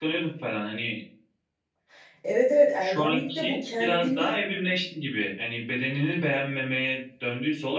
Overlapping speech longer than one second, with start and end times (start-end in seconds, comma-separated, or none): 2.8-4.4